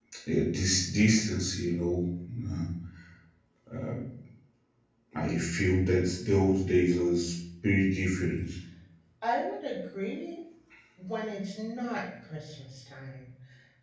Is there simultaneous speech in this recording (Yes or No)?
No